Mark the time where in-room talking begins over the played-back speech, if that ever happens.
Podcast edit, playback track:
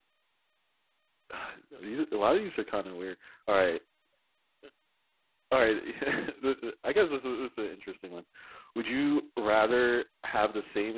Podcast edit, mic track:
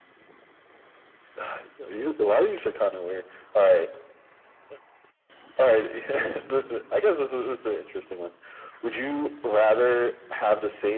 none

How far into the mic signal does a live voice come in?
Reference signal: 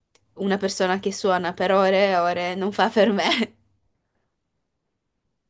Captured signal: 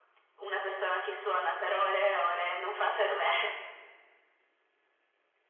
none

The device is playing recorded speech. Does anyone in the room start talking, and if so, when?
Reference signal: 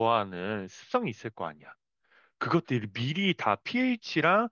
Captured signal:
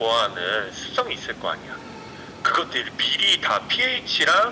none

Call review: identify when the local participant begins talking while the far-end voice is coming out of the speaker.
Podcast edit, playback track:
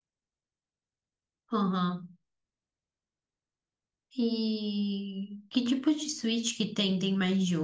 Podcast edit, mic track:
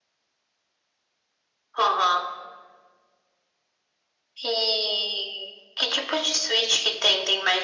none

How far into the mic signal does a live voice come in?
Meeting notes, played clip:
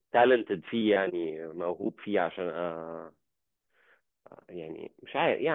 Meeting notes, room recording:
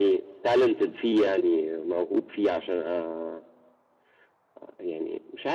none

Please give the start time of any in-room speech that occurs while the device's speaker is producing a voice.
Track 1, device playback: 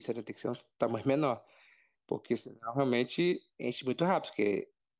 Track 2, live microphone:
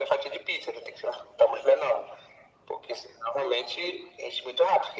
none

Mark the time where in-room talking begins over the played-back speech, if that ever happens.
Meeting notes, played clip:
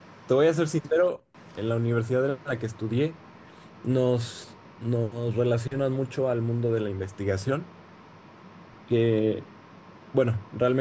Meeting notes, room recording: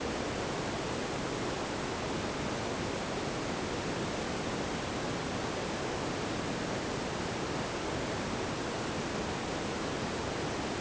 none

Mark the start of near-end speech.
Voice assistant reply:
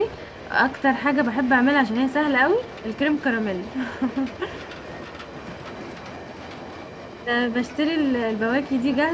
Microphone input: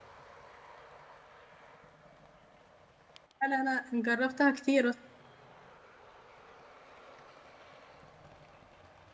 3.4 s

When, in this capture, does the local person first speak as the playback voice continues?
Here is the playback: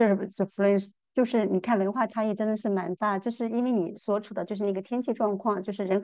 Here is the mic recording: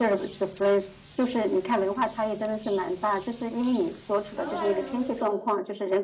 4.3 s

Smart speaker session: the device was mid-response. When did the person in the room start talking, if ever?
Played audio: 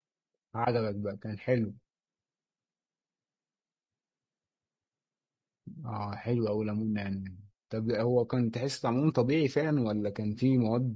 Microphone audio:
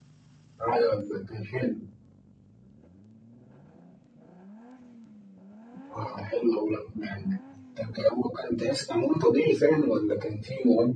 none

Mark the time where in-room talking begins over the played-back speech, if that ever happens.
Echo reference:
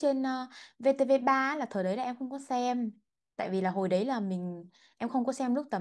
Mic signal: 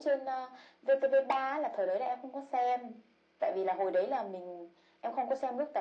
none

